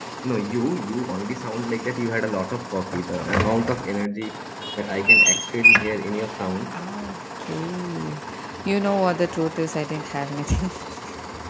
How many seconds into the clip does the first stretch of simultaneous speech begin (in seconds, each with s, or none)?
none